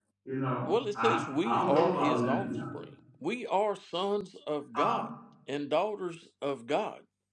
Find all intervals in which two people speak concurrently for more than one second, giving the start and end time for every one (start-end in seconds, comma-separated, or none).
0.7-2.5